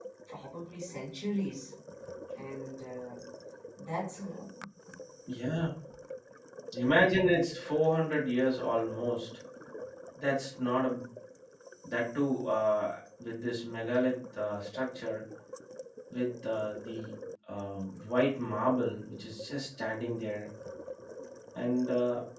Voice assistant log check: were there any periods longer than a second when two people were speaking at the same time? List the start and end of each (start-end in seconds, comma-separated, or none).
none